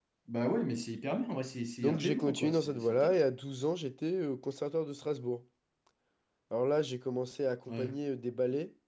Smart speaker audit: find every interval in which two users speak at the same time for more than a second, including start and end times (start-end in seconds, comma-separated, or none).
1.8-3.2